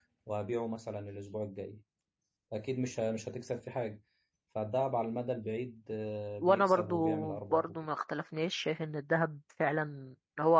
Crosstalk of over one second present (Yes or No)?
Yes